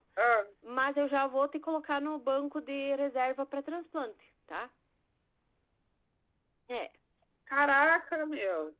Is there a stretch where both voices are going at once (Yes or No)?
No